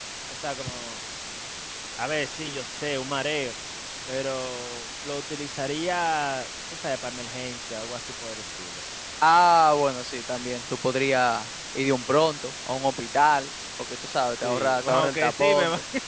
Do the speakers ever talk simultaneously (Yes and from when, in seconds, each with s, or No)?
Yes, from 14.4 s